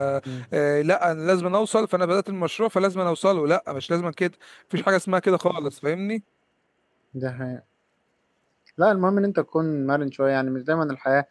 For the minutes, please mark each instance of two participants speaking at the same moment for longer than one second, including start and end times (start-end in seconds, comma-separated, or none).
none